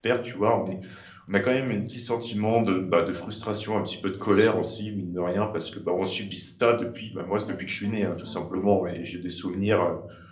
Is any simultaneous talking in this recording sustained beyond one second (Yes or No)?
Yes